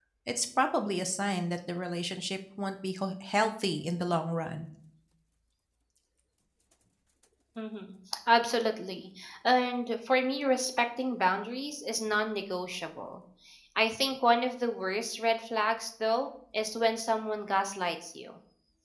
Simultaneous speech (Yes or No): No